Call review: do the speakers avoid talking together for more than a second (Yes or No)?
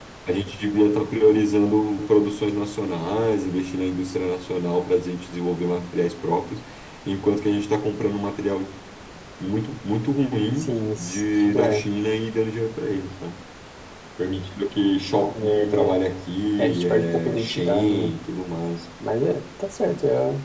No